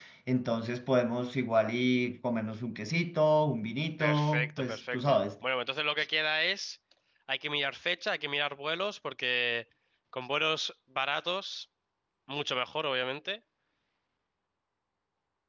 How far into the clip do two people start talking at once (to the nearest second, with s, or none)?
4 s